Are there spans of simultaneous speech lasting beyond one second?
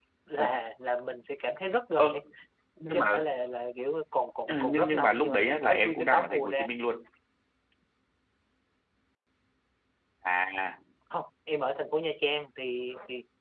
Yes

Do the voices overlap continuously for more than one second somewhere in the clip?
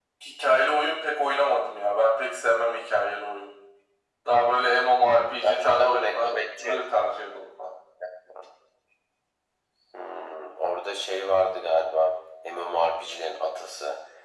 Yes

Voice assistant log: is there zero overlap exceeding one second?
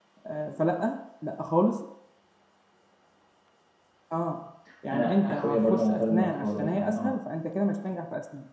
No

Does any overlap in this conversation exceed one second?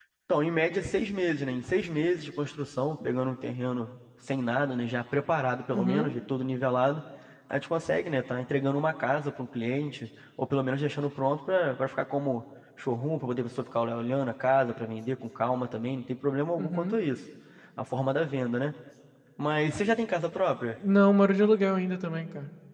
No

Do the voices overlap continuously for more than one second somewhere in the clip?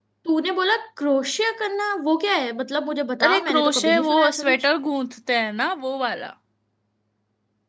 Yes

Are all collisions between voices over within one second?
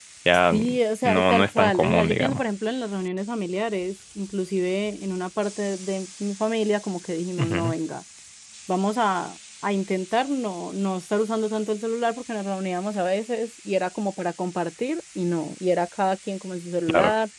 No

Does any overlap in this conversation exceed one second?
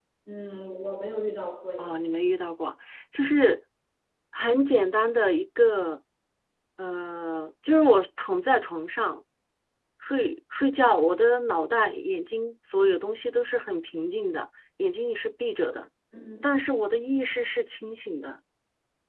No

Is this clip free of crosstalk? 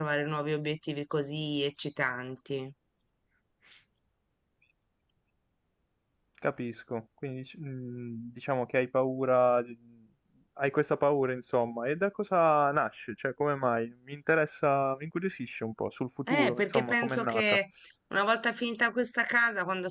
No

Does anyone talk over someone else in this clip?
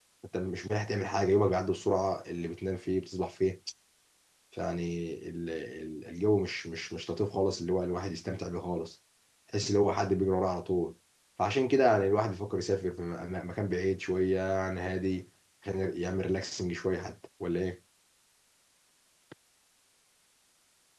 No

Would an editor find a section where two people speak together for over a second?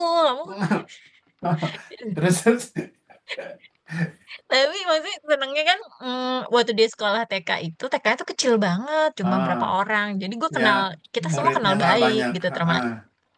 Yes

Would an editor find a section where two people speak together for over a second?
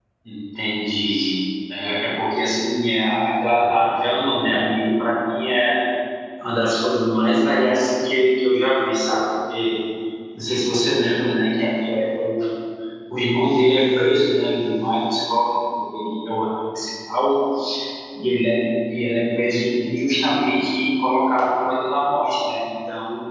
No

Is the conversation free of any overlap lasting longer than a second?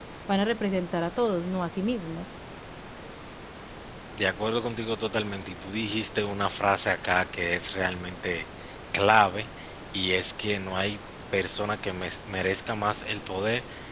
Yes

